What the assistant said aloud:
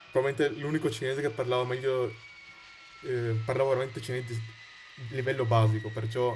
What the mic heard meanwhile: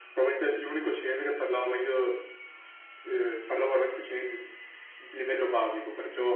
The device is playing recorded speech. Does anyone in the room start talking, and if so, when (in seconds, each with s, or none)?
none